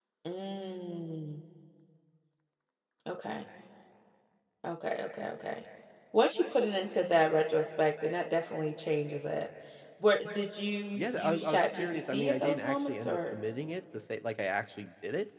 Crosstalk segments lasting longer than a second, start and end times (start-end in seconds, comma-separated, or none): 11.0-13.3